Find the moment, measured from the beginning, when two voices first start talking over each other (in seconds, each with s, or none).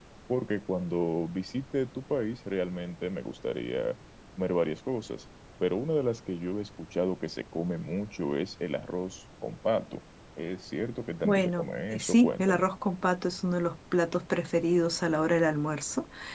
11.2 s